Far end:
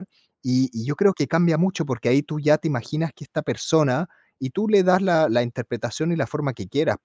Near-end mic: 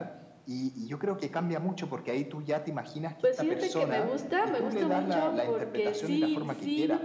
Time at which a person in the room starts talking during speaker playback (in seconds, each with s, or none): 3.2 s